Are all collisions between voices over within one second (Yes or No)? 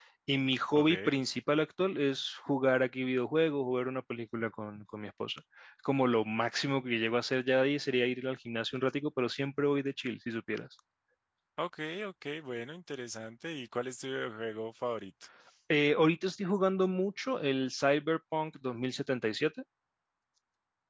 Yes